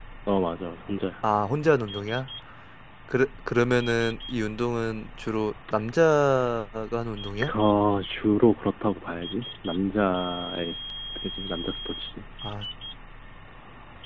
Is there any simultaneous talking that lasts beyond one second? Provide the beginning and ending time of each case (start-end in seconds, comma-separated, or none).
none